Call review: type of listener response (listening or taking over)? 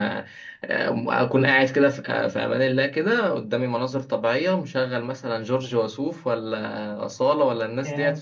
listening